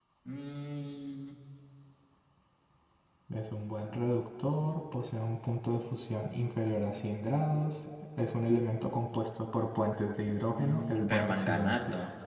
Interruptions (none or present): present